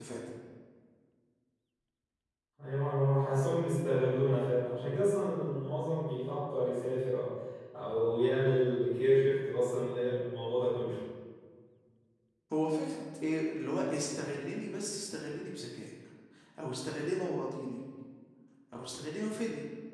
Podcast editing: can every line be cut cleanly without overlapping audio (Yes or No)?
Yes